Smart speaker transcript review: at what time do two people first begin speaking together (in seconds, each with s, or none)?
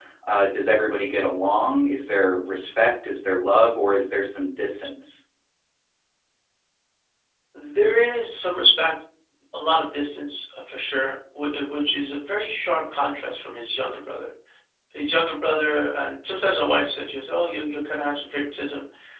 none